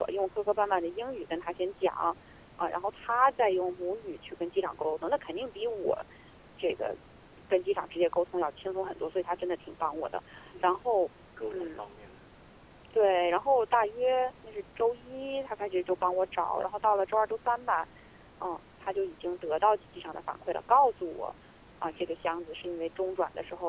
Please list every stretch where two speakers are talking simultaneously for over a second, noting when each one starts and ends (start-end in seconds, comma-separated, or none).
none